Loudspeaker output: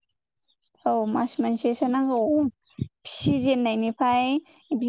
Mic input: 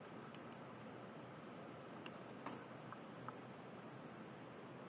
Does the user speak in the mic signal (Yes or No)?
No